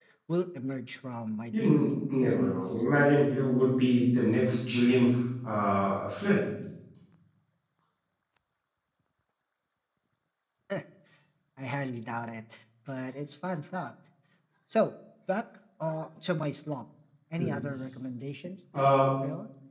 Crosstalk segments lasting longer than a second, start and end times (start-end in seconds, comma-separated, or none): 1.5-2.8